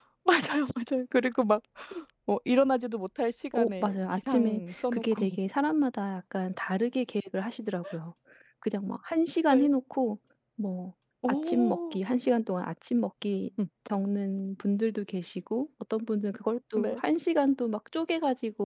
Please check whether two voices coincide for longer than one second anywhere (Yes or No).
Yes